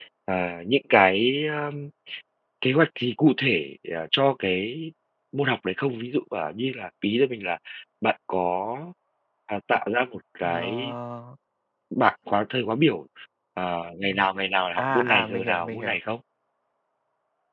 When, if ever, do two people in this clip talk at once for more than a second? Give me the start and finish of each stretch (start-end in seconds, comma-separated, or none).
14.8-16.0